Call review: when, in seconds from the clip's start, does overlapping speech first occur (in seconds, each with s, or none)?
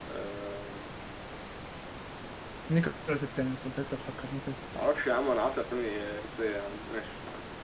none